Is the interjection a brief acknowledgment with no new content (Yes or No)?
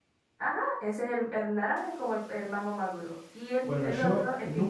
No